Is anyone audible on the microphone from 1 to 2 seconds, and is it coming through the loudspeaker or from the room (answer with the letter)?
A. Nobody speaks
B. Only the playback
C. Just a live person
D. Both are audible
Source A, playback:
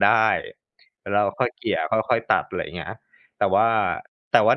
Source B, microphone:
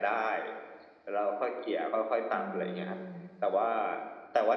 B